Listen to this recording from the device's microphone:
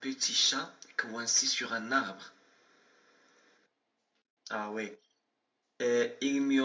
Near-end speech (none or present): none